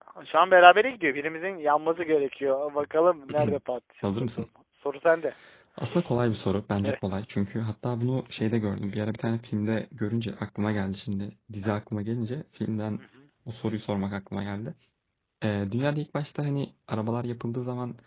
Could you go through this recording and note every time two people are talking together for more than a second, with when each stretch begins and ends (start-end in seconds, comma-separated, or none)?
none